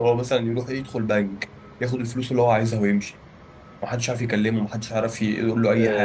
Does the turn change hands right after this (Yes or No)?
Yes